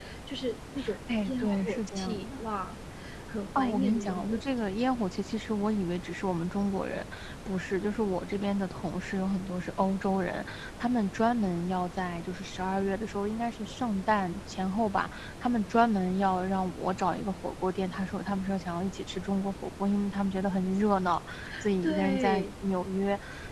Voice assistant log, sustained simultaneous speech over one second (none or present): present